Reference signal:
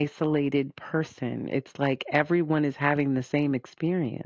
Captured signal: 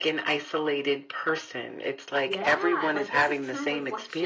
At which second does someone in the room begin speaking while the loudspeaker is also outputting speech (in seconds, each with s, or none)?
2.2 s